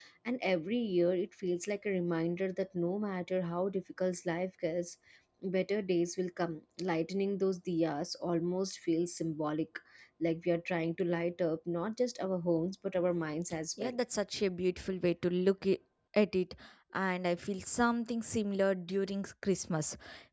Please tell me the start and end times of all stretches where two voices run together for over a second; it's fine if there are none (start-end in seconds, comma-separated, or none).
none